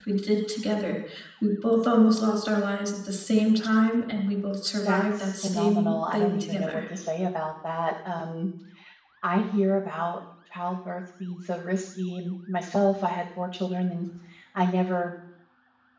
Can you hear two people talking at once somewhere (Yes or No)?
Yes